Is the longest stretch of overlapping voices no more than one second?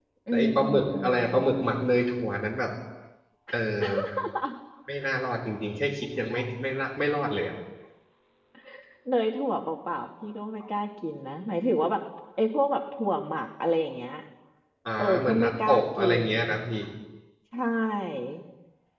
No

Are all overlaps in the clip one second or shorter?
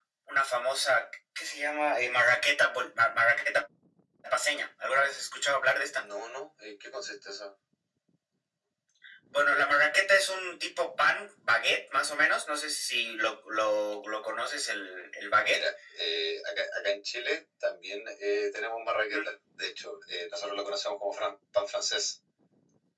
Yes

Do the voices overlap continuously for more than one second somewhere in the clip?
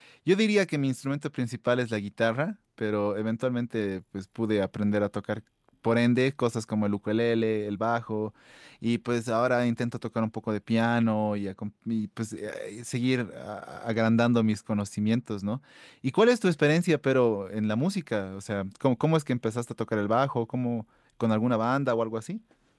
No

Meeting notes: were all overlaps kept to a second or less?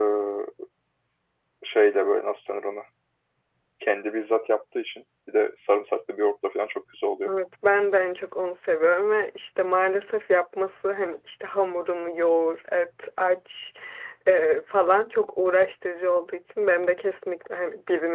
Yes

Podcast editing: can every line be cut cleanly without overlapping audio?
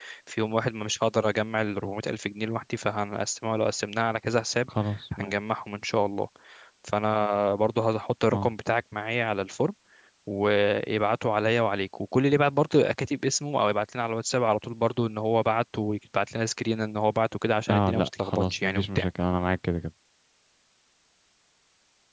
No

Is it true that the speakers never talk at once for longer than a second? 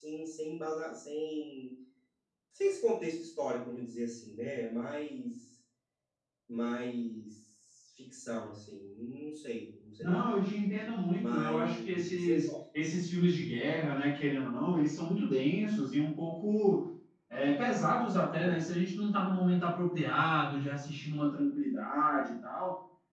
No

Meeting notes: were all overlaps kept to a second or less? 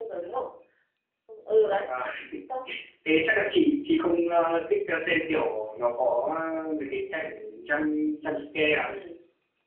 Yes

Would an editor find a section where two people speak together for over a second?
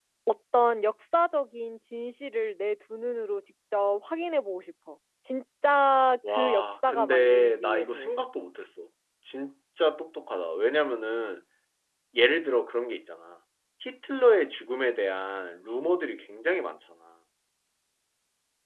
Yes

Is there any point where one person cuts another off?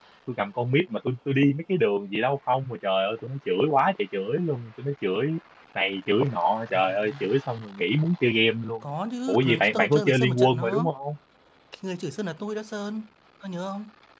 Yes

